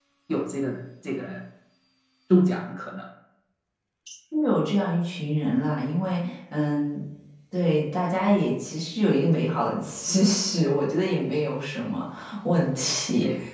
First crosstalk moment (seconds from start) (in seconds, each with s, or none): none